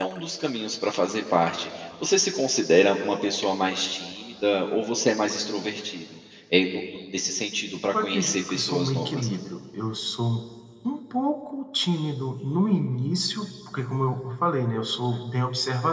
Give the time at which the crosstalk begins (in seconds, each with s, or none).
7.9 s